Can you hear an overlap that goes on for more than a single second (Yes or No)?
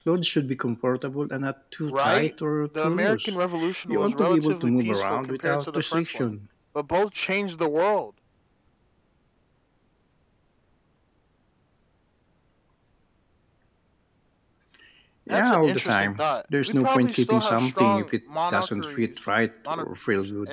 Yes